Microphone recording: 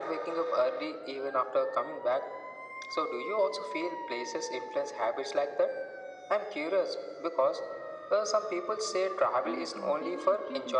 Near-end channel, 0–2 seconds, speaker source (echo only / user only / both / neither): echo only